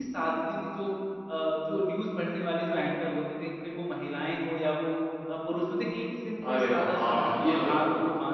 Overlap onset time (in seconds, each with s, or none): 6.4 s